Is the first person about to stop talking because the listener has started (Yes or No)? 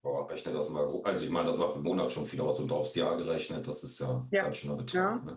Yes